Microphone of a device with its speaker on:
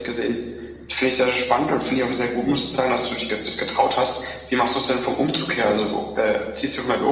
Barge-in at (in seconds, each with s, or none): none